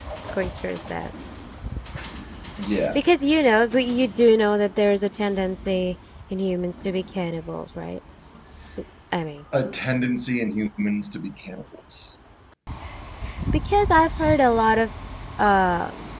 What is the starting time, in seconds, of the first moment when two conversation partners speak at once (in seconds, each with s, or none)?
none